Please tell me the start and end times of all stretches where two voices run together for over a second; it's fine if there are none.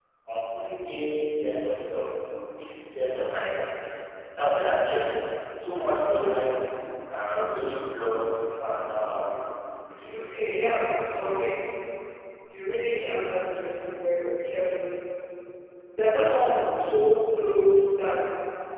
none

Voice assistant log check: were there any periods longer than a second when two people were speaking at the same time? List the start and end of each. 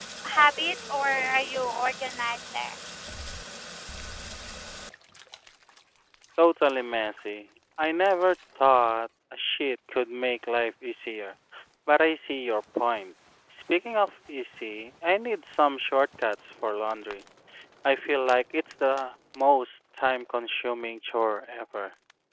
none

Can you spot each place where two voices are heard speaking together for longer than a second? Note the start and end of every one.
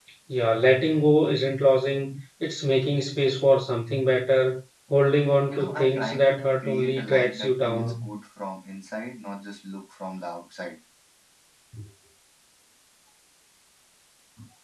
5.5-8.1

